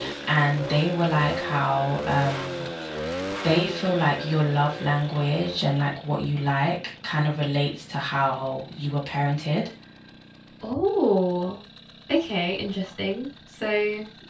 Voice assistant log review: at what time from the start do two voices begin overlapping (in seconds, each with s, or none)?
none